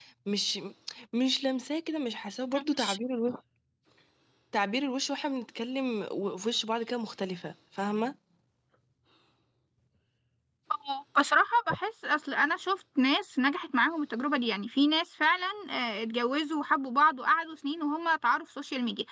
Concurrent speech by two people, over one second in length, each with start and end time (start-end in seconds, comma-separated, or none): none